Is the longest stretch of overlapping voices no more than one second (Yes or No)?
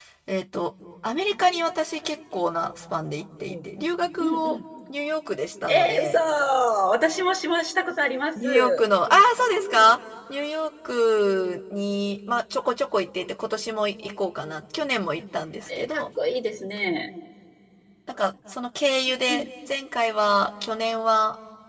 Yes